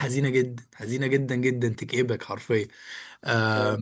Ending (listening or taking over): listening